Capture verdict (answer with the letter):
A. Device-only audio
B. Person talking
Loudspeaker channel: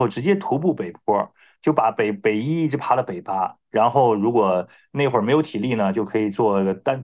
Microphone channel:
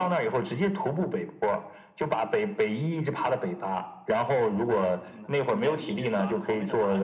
B